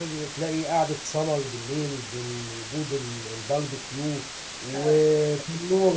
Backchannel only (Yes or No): Yes